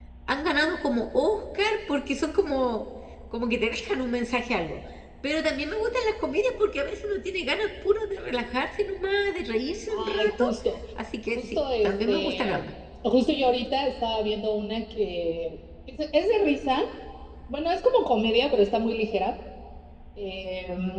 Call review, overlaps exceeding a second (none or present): present